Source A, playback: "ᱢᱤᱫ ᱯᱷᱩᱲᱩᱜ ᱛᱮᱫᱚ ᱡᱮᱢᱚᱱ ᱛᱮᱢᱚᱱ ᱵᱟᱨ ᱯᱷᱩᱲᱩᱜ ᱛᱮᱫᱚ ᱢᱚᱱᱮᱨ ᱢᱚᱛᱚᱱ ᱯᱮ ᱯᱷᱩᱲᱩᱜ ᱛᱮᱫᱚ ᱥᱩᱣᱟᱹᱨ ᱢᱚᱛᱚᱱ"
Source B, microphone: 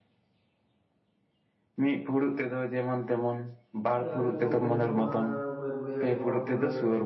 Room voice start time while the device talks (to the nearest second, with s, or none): 4 s